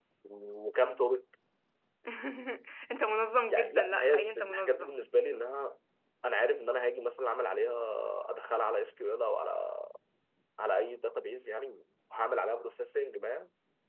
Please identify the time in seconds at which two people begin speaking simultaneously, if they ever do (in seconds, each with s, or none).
3.5 s